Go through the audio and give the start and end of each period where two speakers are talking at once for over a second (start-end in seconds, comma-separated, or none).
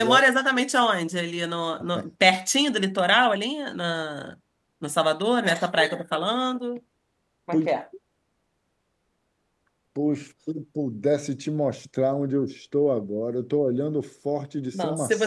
none